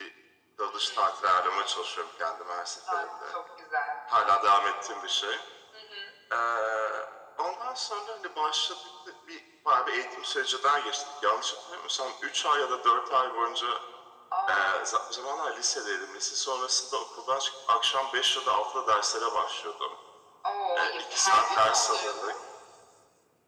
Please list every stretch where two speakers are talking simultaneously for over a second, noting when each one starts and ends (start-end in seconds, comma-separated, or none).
20.8-22.3